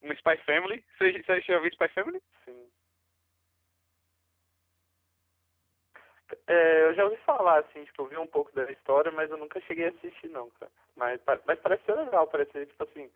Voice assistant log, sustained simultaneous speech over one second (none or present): none